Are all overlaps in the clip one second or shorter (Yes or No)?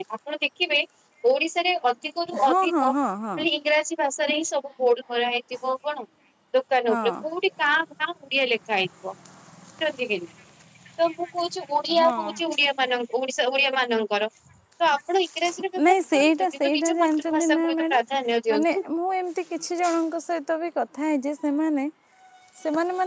No